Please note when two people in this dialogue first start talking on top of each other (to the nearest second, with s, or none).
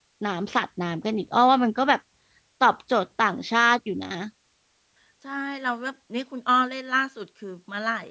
none